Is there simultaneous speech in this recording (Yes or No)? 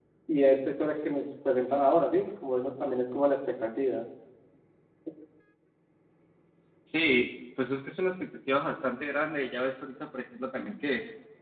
No